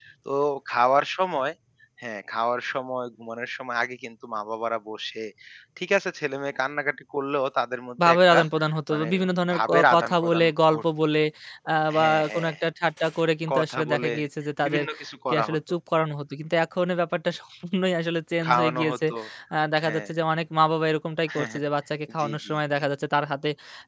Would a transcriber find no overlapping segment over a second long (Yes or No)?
No